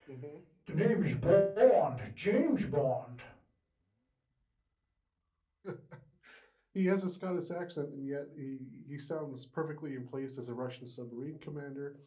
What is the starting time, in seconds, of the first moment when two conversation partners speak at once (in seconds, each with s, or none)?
none